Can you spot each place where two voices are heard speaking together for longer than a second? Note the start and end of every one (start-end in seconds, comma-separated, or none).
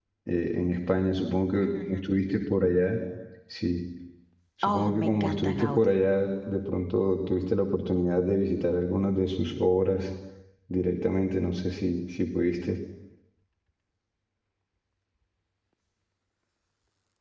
4.6-6.0